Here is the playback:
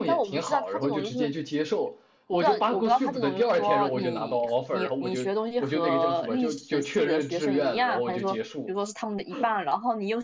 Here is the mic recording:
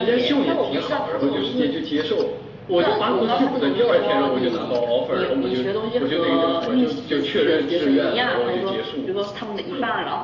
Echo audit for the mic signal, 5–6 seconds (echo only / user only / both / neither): echo only